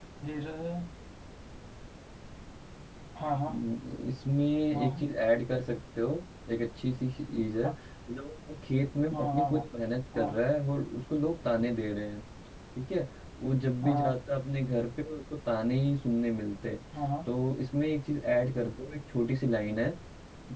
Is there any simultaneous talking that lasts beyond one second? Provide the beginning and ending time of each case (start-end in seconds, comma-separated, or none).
none